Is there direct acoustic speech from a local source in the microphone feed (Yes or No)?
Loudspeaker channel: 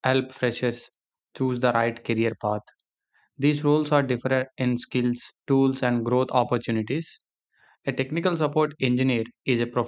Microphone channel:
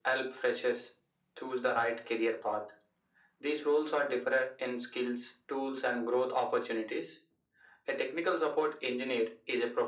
No